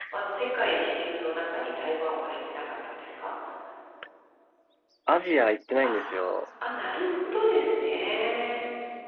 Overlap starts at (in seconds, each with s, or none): none